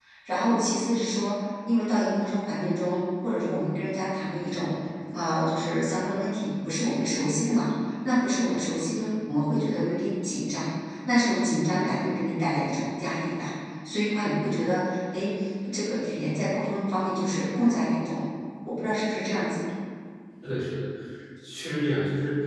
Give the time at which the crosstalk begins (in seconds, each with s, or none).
none